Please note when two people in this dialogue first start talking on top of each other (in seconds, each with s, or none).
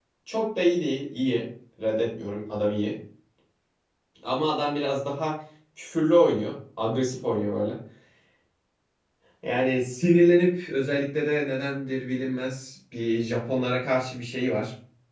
none